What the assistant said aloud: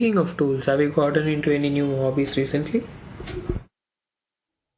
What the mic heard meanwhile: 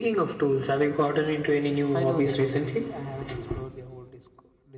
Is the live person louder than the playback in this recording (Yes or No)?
No